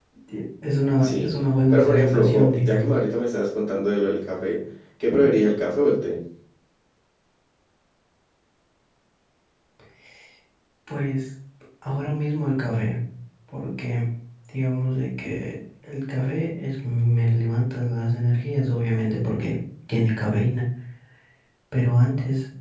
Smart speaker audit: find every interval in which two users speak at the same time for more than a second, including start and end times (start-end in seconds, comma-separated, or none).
1.7-2.9